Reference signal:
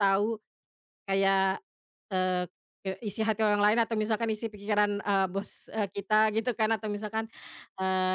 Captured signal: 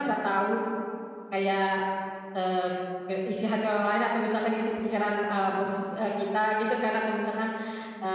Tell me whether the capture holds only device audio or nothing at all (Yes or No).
Yes